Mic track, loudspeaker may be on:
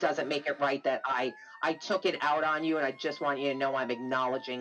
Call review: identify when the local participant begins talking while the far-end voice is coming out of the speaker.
none

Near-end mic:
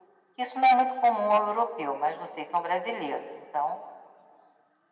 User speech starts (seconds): none

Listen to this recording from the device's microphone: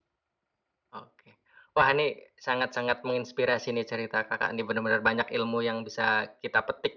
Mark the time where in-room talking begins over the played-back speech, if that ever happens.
none

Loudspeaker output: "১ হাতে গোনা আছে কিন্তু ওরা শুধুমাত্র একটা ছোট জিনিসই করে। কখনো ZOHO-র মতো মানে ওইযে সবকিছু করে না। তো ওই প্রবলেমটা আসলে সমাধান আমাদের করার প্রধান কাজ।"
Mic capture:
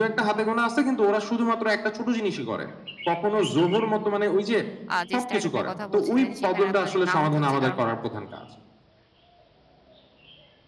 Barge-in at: 4.9 s

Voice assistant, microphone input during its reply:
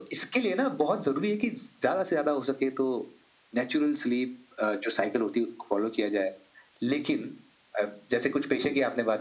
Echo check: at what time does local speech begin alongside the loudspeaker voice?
none

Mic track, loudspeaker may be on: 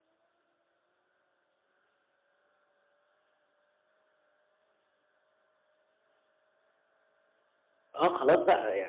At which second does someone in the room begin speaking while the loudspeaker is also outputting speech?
8.0 s

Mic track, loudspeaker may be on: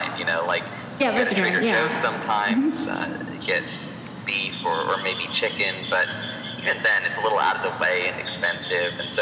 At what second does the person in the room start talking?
1.0 s

